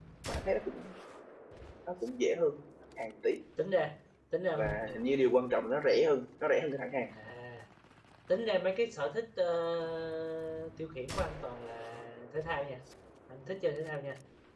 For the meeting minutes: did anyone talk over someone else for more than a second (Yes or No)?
No